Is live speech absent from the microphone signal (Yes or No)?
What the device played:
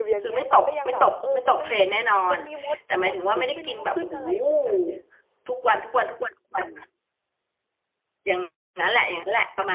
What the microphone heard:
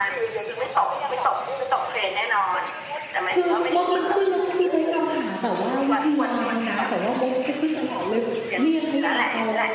No